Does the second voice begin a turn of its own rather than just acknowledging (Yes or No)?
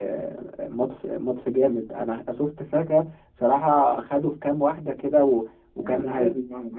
Yes